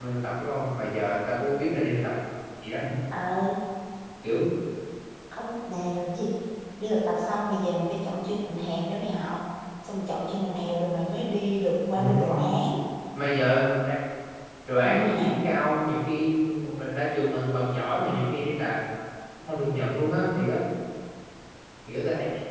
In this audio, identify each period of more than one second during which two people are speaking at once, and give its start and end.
none

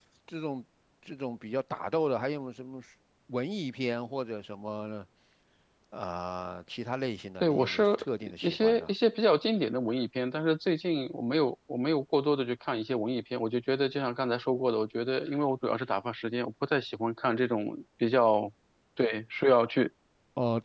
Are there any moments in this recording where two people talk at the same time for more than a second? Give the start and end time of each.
7.4-8.9

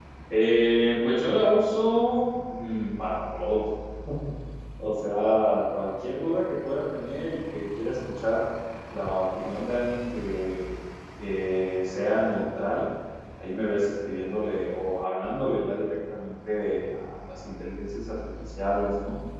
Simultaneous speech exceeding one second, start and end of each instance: none

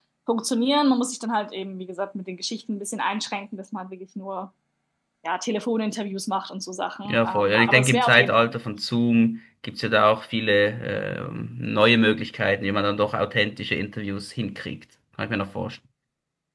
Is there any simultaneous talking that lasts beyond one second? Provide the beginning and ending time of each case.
7.0-8.6

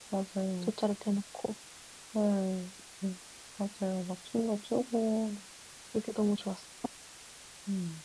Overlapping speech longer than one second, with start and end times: none

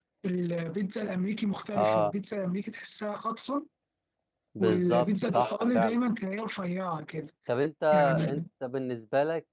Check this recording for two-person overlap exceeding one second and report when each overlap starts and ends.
4.6-6.0

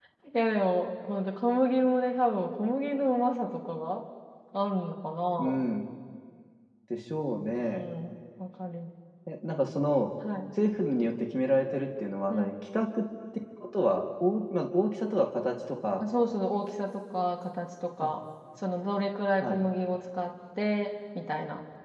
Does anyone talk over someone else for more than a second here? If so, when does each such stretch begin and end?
none

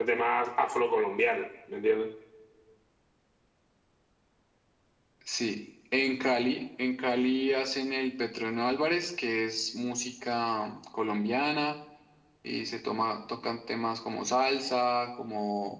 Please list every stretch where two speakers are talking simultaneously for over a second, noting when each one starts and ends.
none

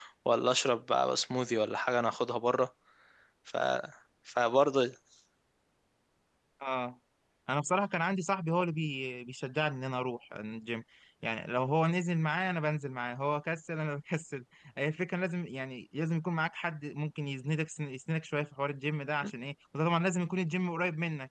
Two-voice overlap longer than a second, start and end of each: none

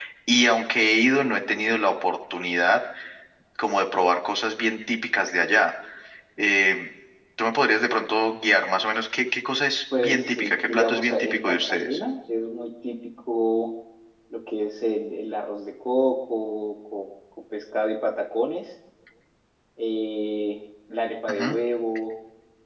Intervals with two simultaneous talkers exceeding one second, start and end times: 10.0-12.0

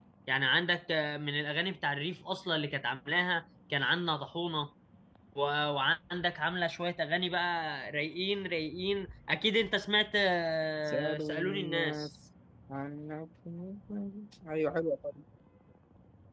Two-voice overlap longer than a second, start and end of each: 10.8-12.1

